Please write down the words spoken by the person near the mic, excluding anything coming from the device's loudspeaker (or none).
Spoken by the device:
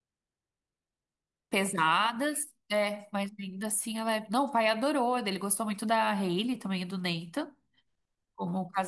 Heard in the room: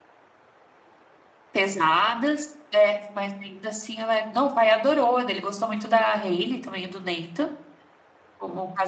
none